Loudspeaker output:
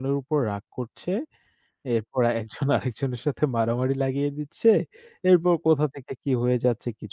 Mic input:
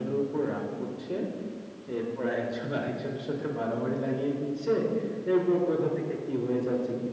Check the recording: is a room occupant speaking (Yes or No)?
No